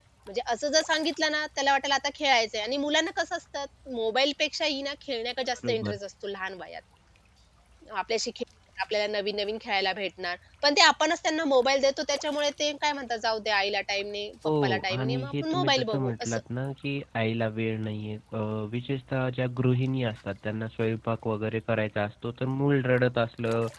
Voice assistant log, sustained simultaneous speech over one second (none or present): present